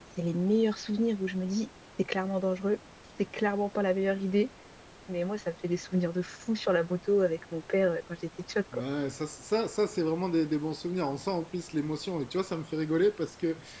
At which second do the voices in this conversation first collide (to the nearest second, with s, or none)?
none